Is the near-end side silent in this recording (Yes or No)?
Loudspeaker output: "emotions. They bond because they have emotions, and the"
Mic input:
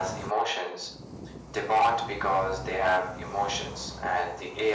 Yes